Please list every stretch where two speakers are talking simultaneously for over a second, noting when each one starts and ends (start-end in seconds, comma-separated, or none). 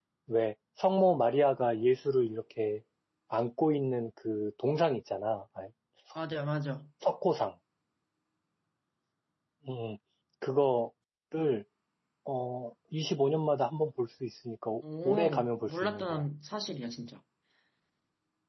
15.0-16.2